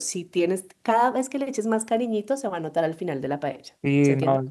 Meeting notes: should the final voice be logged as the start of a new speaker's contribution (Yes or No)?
Yes